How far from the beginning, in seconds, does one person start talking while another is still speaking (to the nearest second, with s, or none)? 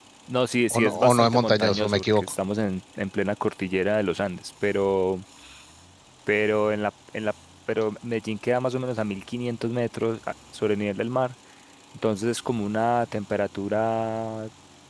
1 s